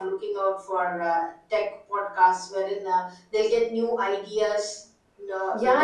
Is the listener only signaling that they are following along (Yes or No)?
No